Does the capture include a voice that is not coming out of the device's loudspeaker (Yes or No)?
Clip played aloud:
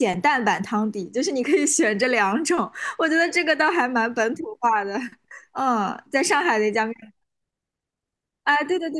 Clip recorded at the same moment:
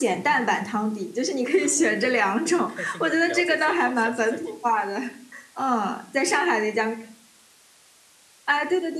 Yes